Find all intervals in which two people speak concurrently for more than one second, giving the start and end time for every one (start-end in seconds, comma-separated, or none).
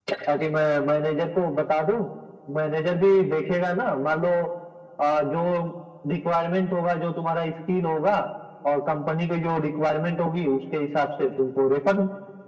none